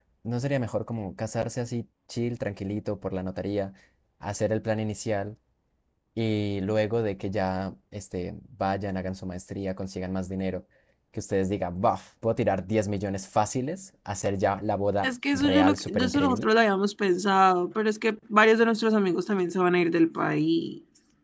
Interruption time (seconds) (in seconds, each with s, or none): 15.0 s